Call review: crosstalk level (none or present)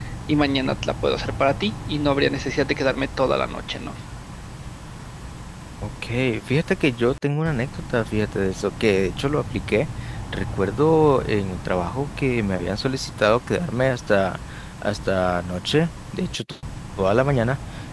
none